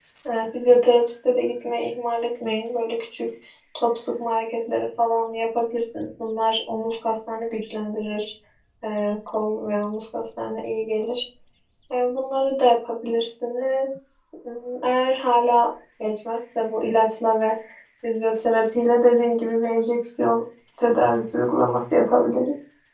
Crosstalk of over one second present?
No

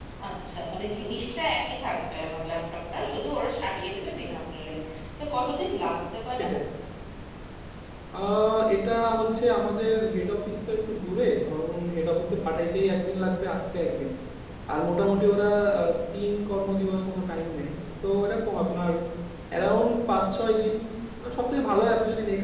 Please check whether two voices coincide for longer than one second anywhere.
No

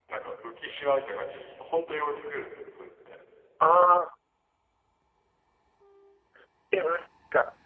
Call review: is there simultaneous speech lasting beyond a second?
No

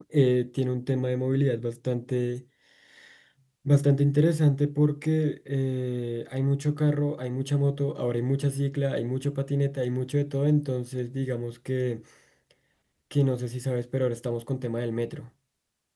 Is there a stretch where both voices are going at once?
No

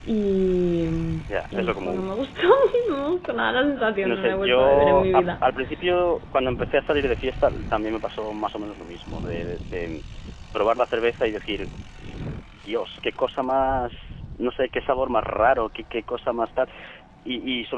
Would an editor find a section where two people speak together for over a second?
Yes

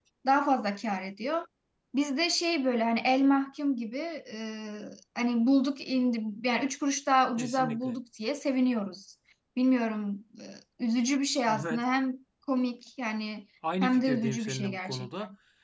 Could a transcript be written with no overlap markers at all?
No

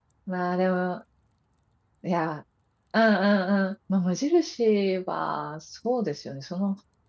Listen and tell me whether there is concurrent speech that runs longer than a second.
No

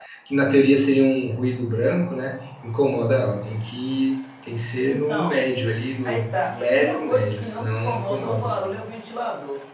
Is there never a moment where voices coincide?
No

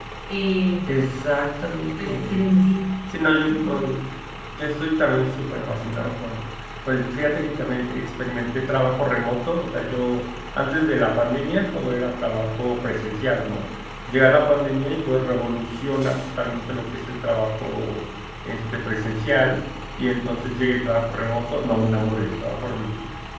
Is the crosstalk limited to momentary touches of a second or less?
Yes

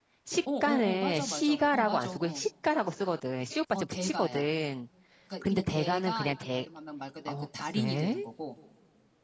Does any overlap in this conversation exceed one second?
Yes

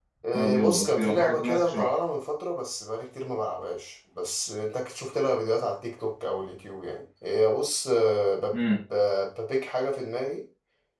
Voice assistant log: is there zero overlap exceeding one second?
No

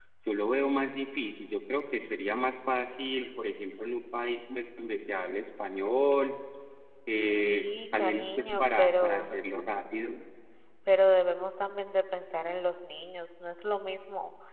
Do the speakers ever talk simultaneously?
Yes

